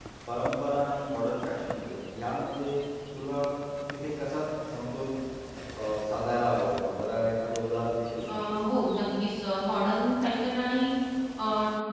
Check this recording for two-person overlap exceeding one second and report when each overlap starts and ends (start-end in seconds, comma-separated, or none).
none